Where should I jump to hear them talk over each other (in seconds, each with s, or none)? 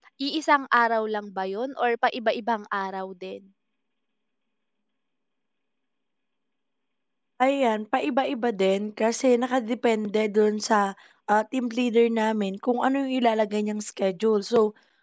none